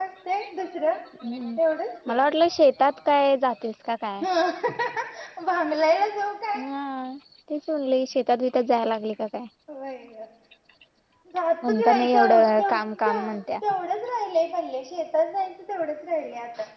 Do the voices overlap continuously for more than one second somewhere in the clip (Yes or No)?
Yes